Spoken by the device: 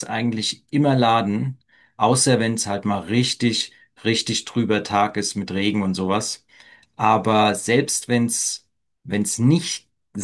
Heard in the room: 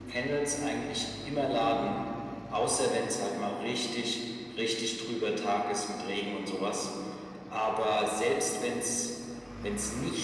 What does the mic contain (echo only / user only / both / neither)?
echo only